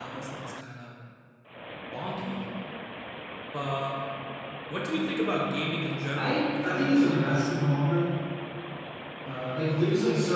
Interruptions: present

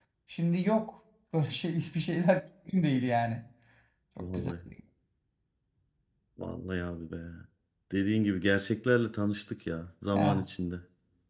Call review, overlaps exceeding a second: none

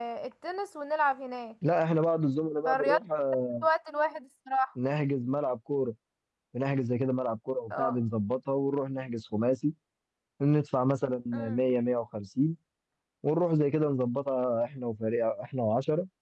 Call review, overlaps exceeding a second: none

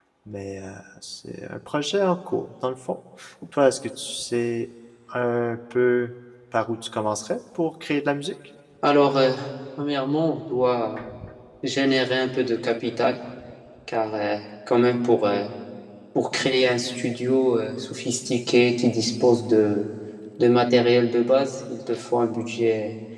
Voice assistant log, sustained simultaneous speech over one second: none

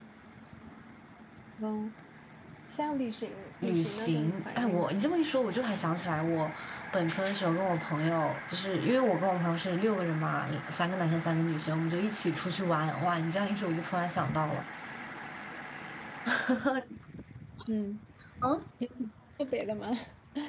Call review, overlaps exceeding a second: present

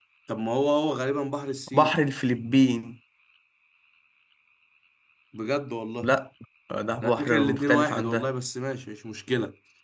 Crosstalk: present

